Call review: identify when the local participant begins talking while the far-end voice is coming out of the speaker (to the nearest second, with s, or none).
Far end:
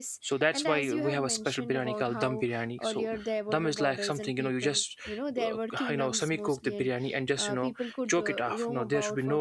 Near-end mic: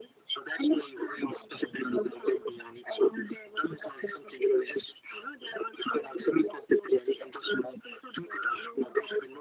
none